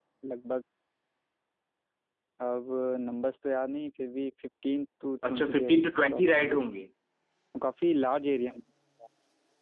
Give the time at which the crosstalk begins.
5 s

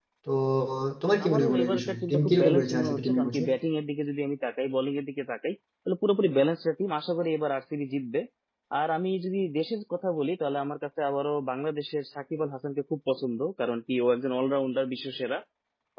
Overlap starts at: 1 s

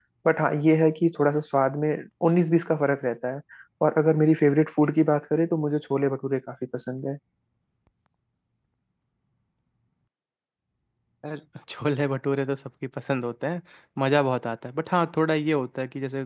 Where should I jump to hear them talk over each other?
none

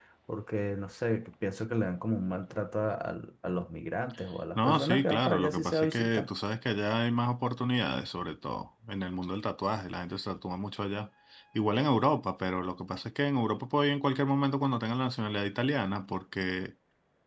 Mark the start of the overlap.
5 s

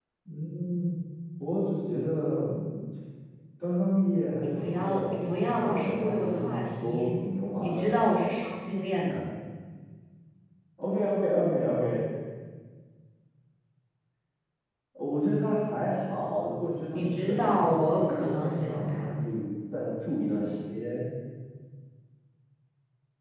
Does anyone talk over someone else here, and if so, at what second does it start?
4 s

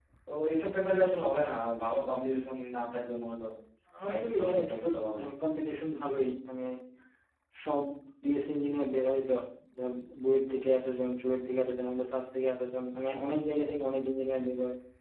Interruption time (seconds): 4 s

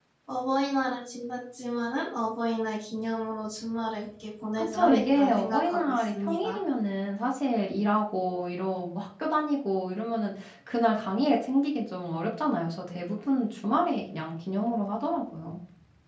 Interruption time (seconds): 5 s

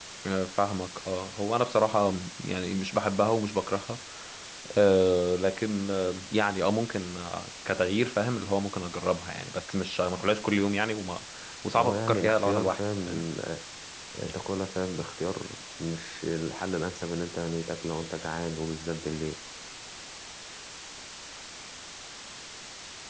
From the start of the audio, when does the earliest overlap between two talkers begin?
12 s

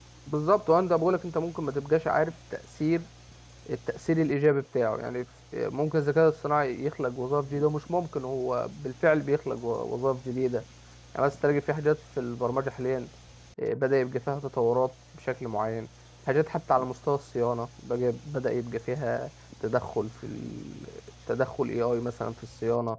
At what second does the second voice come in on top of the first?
none

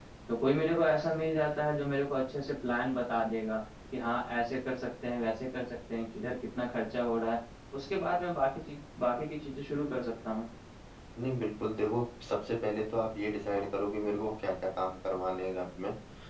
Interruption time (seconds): none

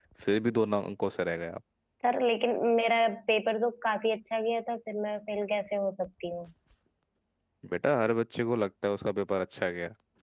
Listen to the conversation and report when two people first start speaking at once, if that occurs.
none

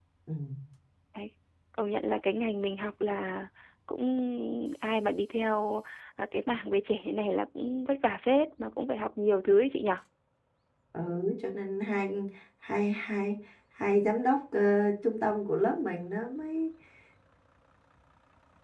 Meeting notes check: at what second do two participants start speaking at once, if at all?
none

